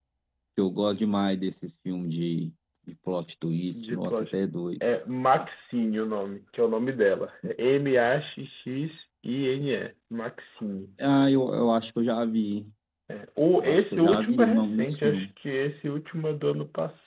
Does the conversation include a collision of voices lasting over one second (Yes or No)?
Yes